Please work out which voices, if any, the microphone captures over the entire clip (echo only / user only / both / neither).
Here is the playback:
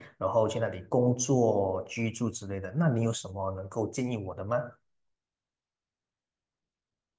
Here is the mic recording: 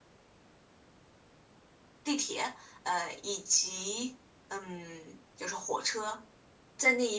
user only